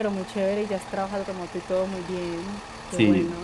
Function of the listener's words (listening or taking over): taking over